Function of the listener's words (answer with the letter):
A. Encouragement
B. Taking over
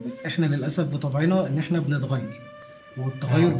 A